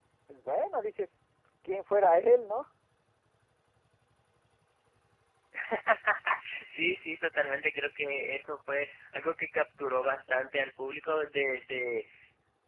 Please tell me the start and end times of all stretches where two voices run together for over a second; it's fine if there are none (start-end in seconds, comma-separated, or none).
none